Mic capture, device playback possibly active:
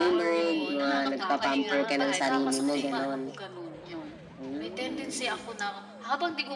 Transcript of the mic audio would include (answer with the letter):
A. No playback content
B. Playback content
B